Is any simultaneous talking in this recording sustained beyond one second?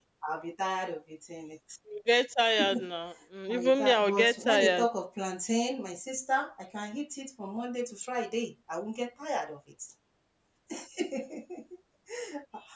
Yes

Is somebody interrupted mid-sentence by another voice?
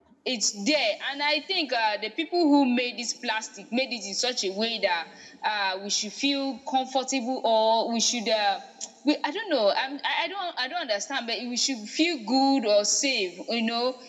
No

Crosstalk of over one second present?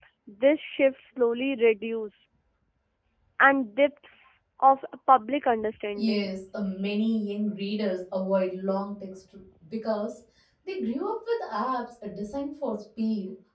No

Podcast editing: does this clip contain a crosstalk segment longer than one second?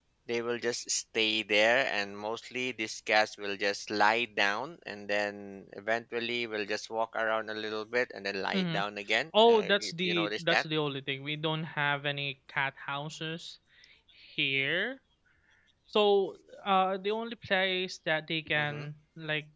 Yes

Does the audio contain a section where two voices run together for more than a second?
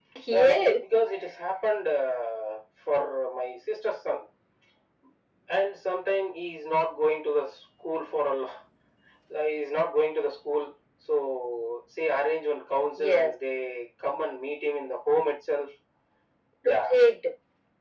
No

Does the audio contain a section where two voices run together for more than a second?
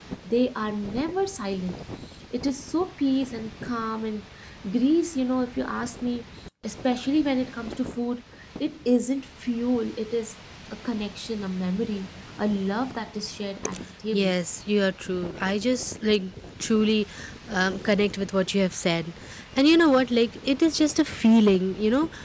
No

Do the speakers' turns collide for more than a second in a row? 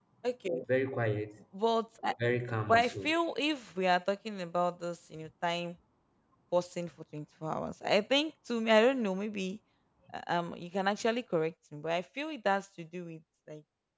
No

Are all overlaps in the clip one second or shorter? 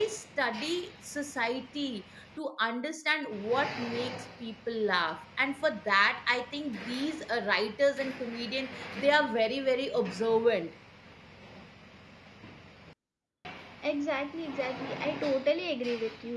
Yes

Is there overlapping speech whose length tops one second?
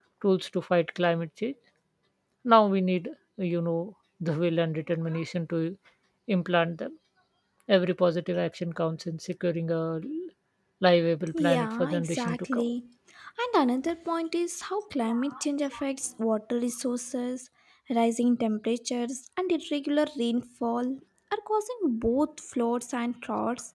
Yes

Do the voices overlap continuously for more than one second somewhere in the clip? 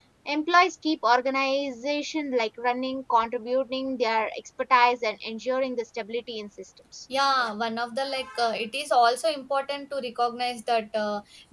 No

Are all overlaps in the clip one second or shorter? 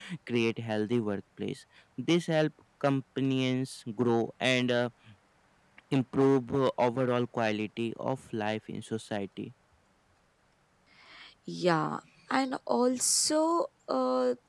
Yes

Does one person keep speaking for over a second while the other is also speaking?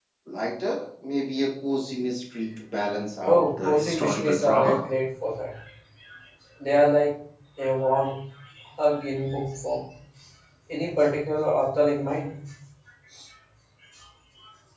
Yes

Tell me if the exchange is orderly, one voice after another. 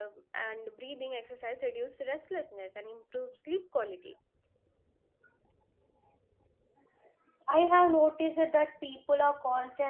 Yes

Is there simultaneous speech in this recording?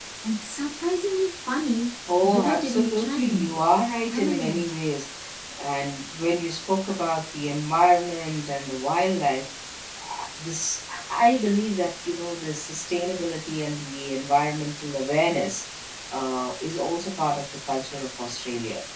Yes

